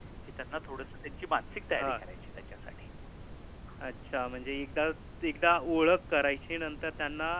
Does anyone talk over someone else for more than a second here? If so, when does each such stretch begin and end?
none

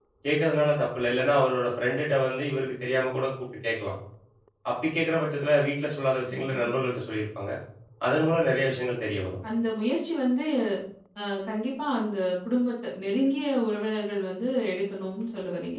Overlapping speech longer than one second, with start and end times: none

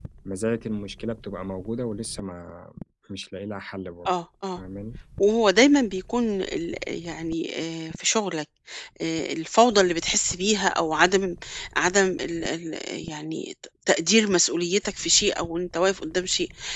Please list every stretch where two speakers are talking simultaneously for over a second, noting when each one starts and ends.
none

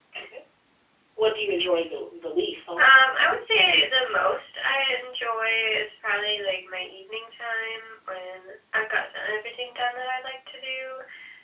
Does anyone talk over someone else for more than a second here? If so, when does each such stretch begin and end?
none

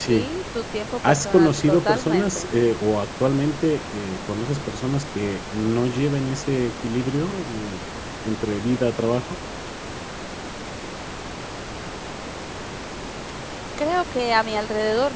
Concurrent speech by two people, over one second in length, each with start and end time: 1.1-2.5

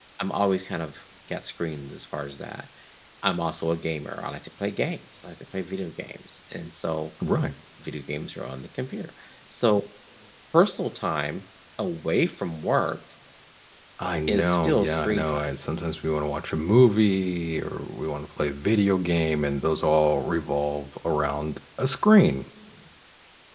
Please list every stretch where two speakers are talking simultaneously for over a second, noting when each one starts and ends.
14.3-15.5

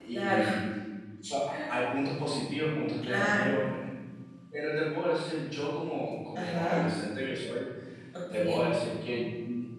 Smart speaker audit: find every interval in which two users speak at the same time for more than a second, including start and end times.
none

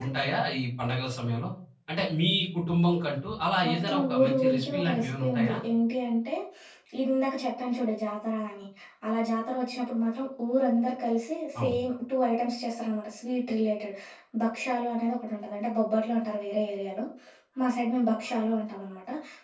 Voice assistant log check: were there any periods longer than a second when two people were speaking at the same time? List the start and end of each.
3.6-5.5

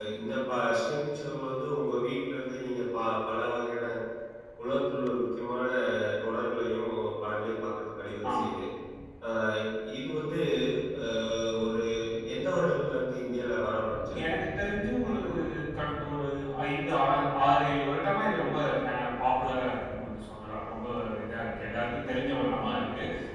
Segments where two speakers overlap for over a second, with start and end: none

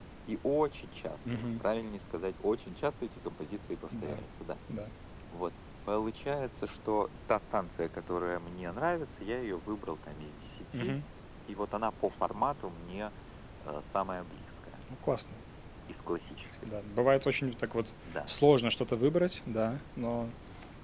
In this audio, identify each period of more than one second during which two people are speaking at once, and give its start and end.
none

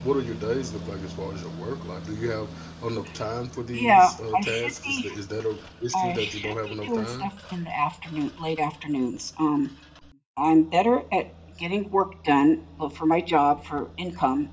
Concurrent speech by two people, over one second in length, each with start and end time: 3.7-5.1, 5.9-7.3

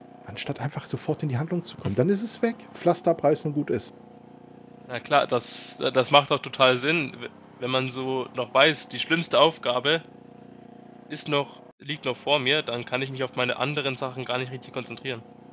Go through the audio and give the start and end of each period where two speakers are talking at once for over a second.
none

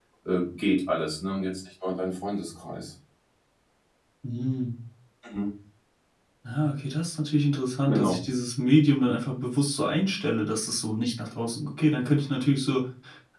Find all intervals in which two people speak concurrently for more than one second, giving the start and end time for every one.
none

